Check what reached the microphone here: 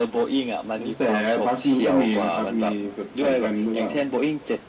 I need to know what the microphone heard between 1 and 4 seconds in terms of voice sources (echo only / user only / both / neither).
echo only